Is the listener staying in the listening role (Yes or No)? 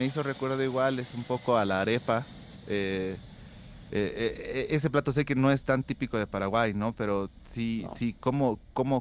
Yes